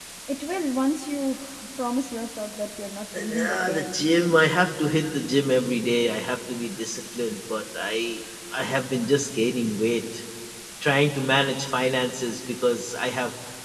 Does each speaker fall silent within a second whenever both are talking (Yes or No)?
No